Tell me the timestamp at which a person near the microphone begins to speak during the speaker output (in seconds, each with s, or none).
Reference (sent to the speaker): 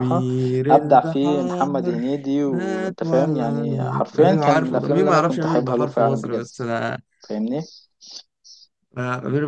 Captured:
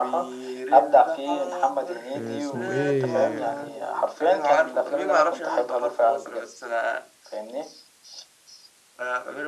2.1 s